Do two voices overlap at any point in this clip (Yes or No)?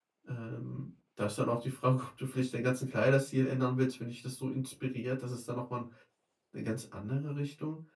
No